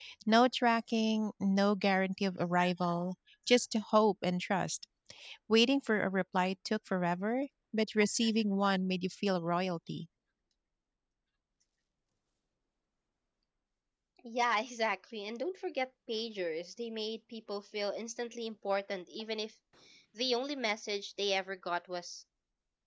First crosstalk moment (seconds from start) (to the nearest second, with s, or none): none